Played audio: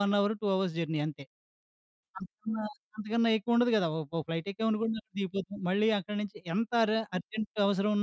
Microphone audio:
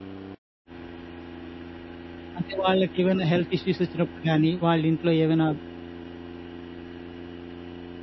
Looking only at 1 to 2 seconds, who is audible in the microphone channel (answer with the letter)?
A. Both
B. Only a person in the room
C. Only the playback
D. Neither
D